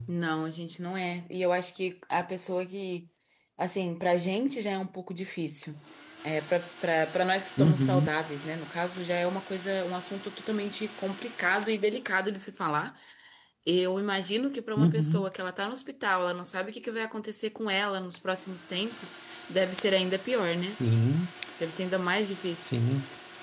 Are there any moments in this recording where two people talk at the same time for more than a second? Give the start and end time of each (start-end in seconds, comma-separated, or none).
none